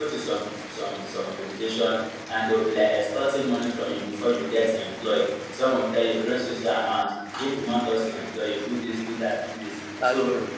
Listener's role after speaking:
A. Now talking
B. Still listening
B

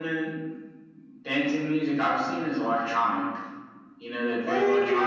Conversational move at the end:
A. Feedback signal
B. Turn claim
A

